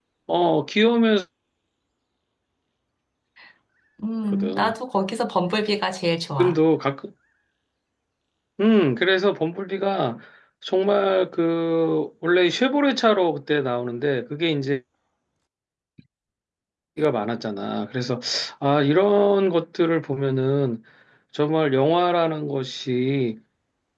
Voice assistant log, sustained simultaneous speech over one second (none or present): none